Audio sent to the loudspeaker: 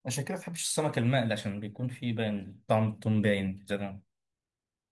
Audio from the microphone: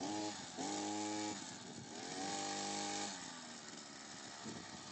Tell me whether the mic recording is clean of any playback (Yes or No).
Yes